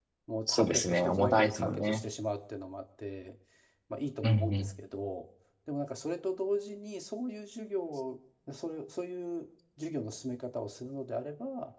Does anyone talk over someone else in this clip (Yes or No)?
Yes